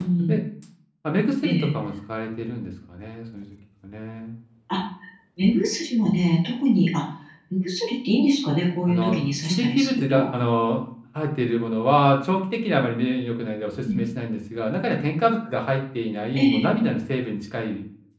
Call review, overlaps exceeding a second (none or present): present